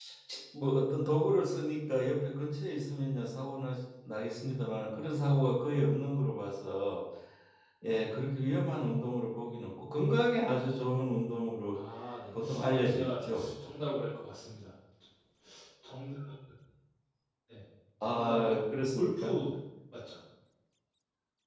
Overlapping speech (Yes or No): Yes